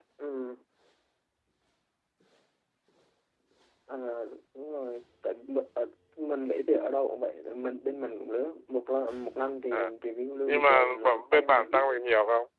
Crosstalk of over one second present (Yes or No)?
Yes